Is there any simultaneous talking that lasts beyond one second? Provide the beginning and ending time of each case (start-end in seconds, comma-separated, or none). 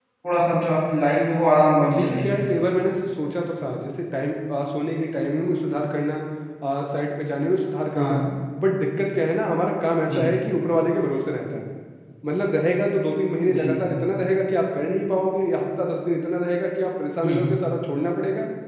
none